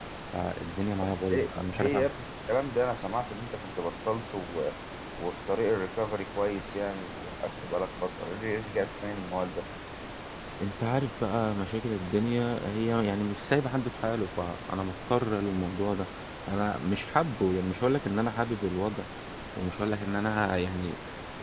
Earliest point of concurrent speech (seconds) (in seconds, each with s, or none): 1.0 s